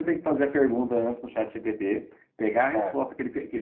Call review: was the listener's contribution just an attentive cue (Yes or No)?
Yes